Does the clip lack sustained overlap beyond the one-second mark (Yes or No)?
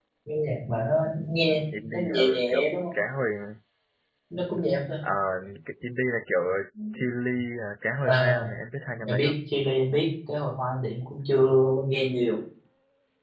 No